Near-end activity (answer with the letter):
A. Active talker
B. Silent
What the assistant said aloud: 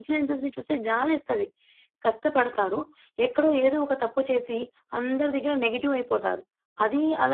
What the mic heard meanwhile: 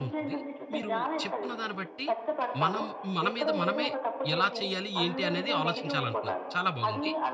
A